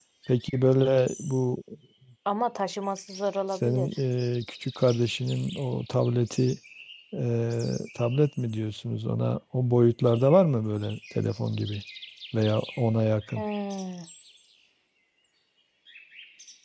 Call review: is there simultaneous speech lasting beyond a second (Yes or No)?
No